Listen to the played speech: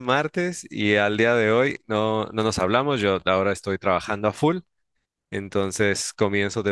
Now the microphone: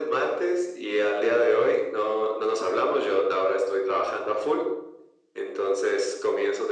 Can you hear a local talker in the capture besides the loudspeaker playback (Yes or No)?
No